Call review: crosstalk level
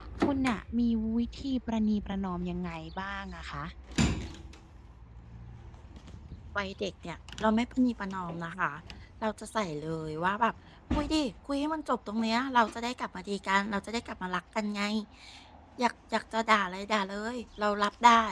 none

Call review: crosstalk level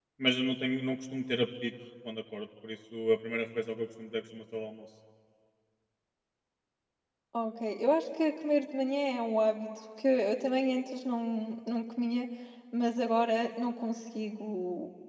none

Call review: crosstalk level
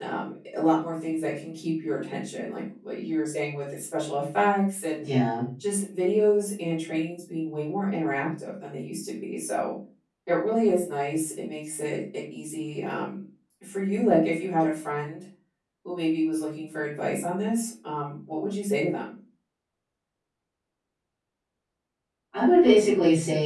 none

